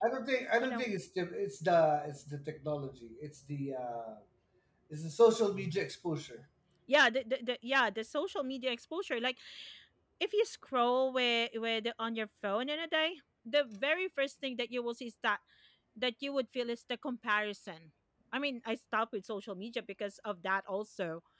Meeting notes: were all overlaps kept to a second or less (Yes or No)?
Yes